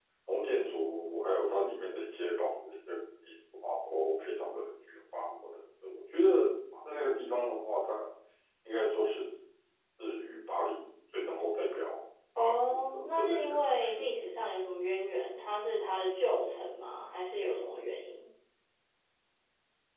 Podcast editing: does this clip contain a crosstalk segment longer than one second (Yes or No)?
Yes